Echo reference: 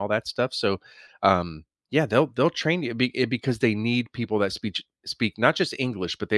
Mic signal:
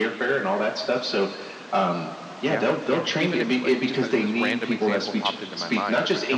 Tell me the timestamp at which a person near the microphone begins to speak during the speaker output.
2.4 s

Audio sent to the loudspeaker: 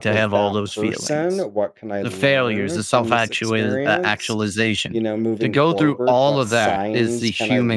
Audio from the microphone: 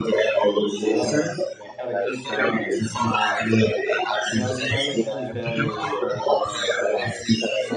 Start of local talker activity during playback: 0.7 s

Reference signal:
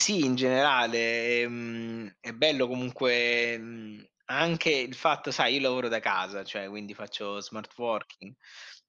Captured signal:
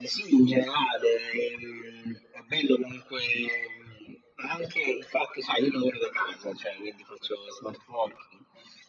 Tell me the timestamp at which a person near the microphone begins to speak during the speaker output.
none

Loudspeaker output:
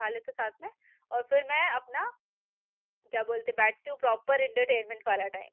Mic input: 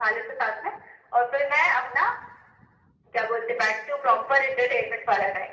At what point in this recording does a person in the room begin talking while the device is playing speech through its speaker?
none

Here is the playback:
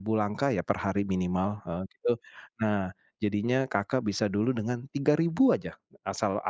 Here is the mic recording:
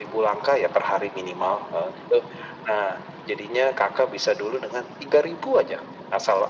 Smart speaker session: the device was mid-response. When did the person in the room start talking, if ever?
none

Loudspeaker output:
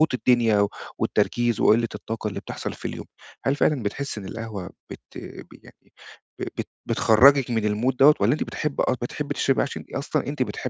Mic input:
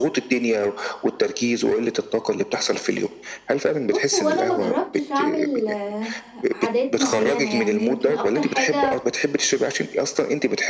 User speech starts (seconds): 3.9 s

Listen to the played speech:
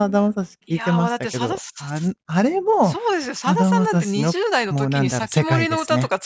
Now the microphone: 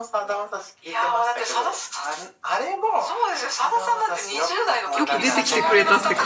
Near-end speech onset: 5.0 s

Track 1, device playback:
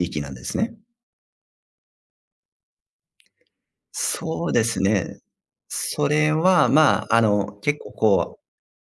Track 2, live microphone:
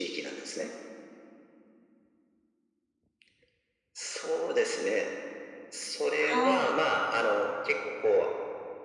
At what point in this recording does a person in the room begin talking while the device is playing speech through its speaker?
6.2 s

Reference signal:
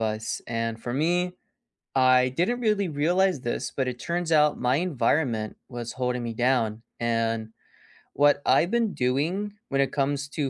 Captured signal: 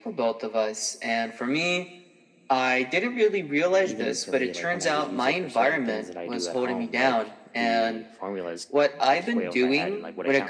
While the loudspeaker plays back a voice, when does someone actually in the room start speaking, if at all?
3.8 s

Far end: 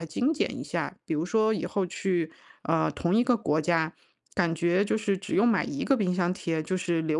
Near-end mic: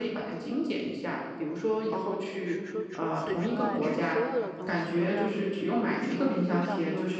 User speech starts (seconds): 1.9 s

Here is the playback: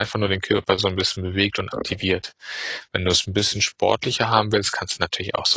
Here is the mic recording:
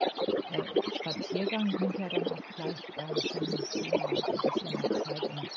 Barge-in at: 0.4 s

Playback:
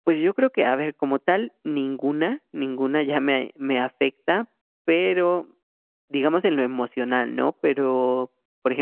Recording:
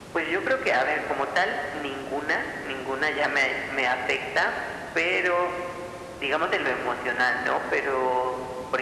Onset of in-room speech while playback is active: none

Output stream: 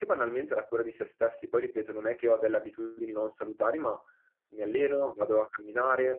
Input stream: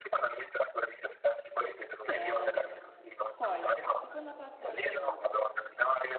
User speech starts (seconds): 2.0 s

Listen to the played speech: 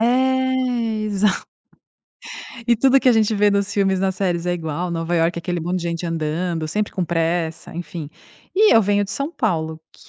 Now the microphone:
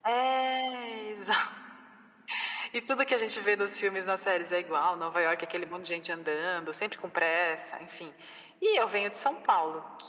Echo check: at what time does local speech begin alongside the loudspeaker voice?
none

